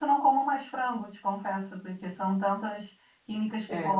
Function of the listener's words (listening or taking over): listening